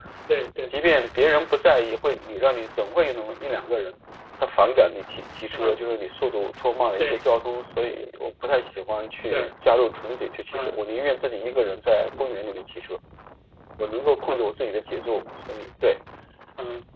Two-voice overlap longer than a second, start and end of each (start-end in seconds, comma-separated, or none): none